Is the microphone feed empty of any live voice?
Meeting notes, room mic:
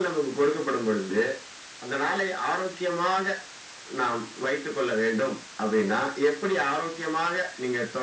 Yes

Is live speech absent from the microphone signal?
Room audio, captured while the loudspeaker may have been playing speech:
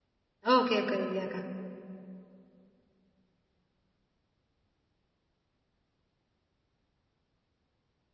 No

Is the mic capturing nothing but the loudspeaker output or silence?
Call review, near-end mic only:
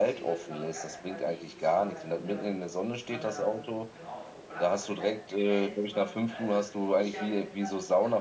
No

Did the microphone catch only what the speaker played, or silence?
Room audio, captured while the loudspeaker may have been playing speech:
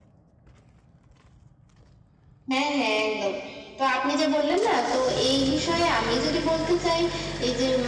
Yes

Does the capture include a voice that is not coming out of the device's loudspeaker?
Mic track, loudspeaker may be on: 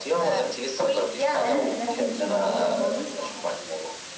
Yes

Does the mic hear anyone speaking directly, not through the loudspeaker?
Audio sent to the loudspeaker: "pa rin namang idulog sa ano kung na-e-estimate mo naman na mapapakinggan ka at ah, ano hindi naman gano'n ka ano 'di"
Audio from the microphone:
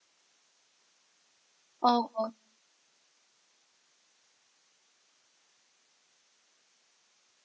Yes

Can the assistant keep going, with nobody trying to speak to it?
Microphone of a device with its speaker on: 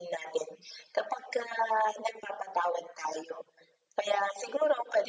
Yes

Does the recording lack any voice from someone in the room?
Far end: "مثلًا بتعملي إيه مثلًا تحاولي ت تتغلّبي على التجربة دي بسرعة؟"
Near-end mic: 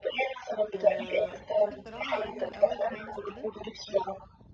No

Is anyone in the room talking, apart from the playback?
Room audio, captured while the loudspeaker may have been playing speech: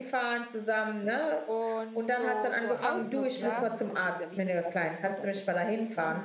Yes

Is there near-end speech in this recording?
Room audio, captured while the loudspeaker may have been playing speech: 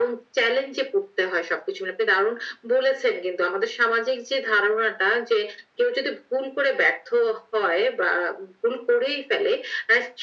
No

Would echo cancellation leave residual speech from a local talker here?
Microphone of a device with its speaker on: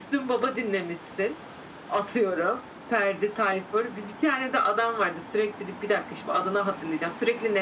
No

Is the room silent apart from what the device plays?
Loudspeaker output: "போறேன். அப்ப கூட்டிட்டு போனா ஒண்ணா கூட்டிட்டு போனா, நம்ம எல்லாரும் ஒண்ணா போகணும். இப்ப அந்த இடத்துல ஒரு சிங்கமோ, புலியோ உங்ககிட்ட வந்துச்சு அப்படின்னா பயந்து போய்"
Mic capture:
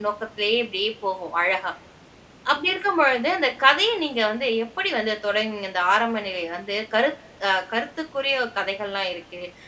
No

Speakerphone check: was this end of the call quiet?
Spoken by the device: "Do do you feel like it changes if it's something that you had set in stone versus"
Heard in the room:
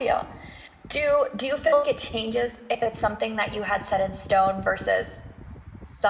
Yes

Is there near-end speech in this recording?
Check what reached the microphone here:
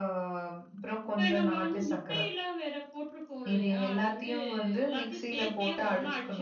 No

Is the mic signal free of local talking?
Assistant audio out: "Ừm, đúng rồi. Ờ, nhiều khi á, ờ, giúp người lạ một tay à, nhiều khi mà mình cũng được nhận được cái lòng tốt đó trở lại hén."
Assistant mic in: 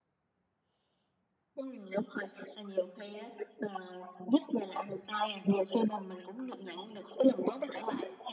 Yes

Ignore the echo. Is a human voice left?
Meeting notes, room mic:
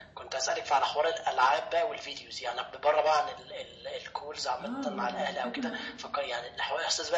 Yes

